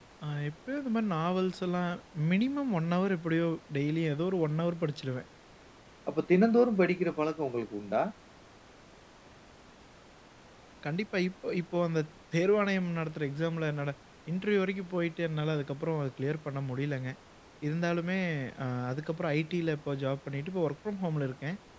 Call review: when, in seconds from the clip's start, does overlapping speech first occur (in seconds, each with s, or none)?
none